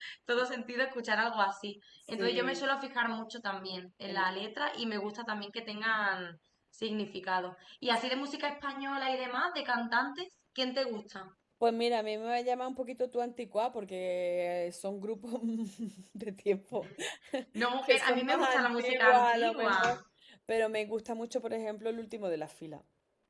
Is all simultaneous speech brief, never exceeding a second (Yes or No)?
No